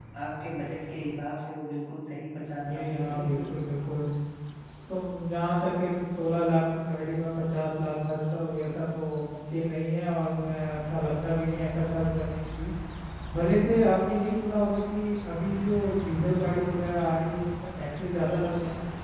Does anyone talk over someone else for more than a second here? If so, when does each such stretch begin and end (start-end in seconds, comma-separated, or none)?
2.3-3.7